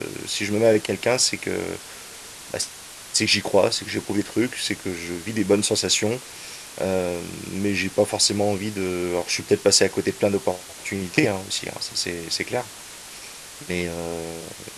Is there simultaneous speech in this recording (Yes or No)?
No